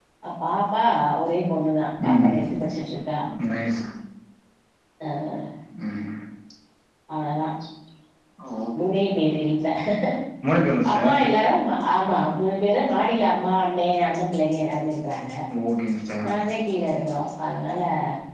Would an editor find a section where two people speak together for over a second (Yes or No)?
No